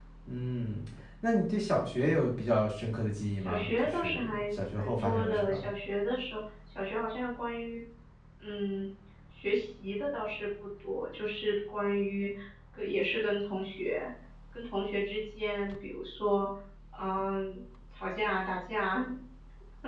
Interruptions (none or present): present